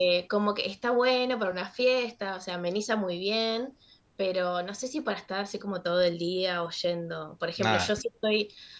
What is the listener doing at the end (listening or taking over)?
listening